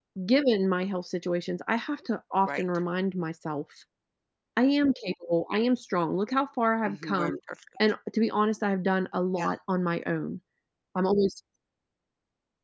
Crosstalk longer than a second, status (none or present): none